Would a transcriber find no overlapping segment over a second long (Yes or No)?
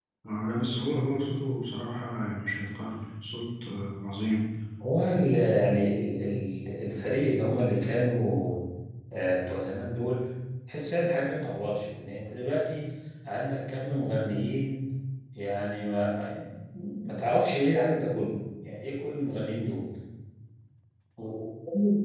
Yes